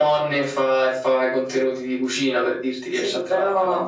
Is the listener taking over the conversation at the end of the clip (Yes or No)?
Yes